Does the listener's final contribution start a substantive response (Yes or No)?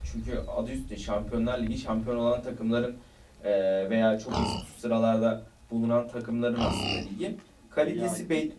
No